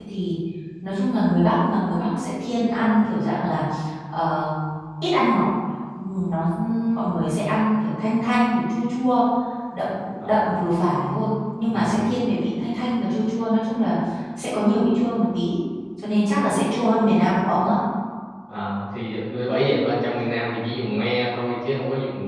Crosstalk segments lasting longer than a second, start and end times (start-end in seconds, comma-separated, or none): none